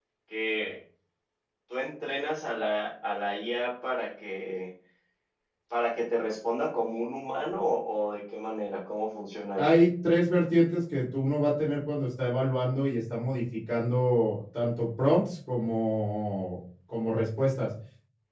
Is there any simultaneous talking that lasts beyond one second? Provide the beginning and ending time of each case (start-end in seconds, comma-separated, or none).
none